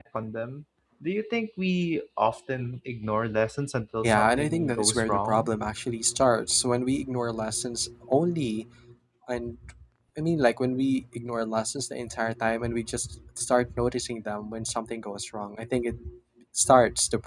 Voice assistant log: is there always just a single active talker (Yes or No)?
No